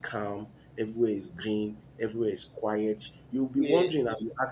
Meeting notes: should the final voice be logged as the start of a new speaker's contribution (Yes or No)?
No